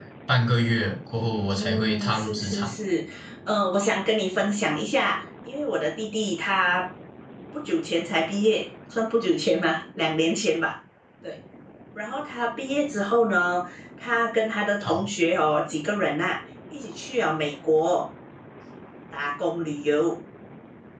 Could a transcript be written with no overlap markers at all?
No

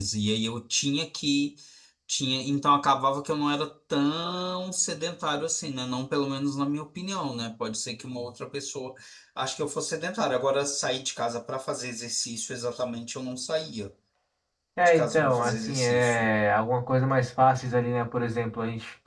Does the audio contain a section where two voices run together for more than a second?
Yes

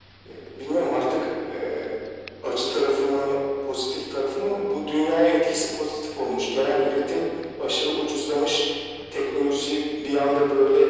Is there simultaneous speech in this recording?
No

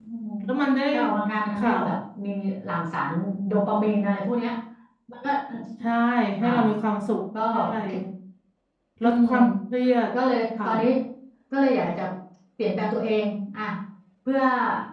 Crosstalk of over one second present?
No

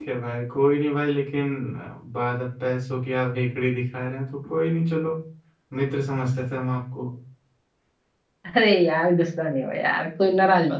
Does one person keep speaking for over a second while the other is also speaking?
No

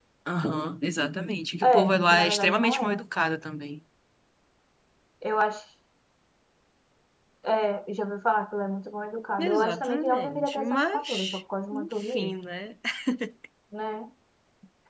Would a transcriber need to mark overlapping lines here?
Yes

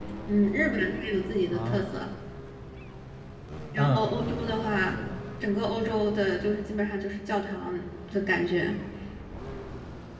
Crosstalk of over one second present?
Yes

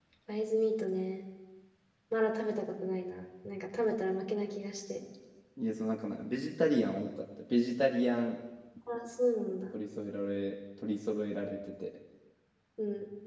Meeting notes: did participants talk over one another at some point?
No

